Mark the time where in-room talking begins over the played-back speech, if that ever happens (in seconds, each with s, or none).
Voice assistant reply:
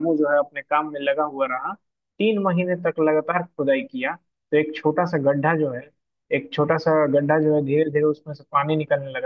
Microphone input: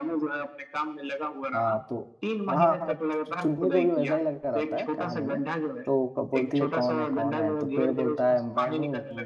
1.5 s